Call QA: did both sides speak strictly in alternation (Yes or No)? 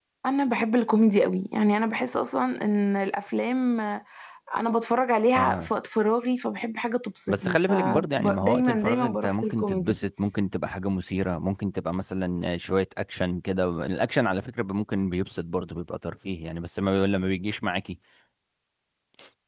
No